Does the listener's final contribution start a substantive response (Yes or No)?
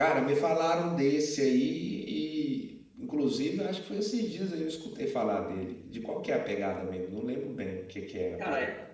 Yes